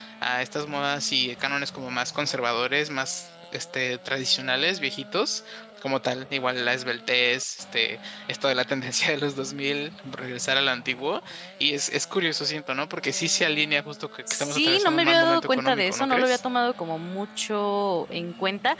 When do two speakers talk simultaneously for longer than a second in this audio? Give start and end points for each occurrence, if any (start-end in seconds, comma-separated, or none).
14.3-16.4